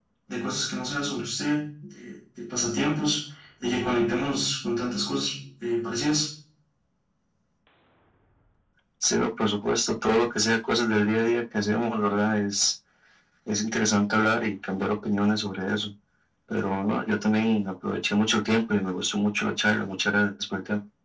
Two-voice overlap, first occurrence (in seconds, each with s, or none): none